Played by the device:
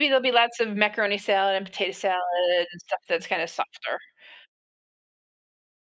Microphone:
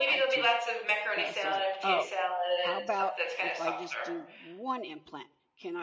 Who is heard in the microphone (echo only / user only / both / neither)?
both